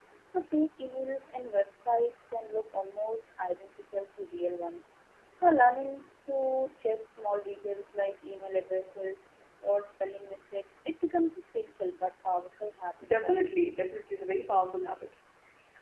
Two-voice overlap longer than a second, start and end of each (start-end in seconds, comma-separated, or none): none